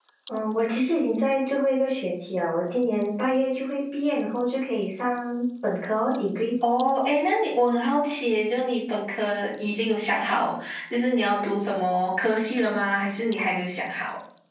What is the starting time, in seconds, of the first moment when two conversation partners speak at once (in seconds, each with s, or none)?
none